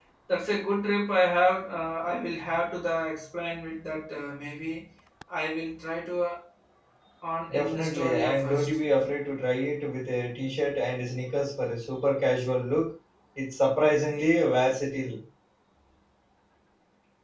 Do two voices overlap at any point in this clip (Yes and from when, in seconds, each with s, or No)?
Yes, from 7.5 s